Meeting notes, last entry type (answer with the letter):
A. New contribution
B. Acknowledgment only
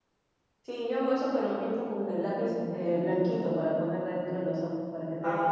A